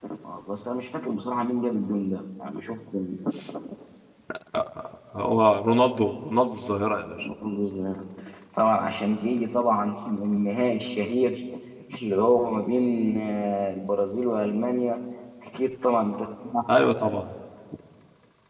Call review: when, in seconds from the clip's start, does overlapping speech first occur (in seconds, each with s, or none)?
none